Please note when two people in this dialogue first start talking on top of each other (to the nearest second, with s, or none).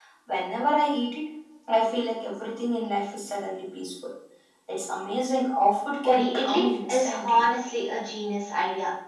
6 s